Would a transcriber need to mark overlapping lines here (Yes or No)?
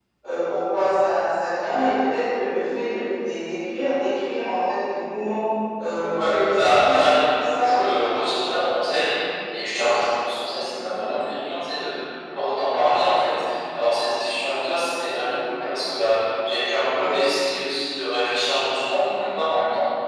Yes